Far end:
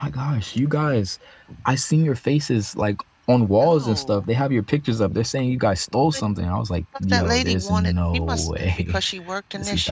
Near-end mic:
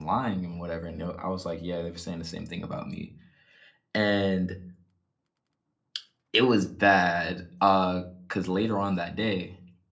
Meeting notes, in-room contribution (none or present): present